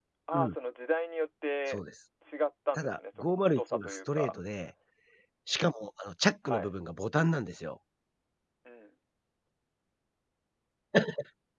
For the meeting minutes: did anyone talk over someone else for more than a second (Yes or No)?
Yes